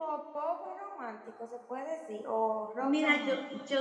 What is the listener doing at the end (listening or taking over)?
taking over